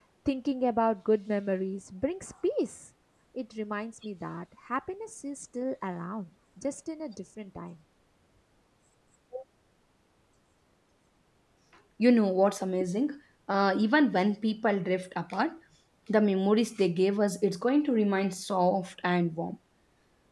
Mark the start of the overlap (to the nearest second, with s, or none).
none